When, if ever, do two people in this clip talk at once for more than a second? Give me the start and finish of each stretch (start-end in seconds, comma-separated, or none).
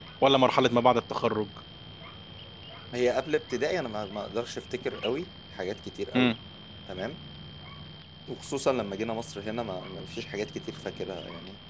none